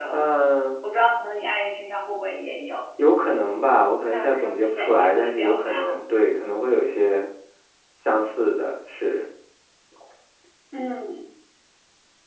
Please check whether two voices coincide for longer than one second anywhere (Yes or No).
Yes